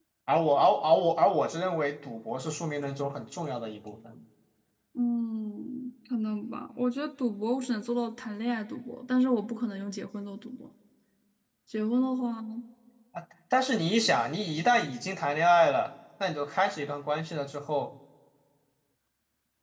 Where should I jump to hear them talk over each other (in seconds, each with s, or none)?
none